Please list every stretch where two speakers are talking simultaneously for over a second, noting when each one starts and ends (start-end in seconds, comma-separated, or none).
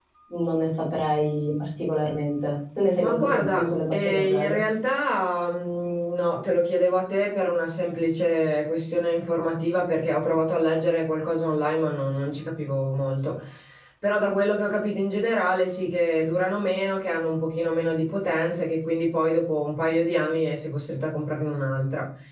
3.0-4.6